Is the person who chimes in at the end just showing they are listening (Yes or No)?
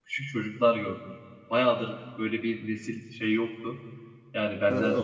Yes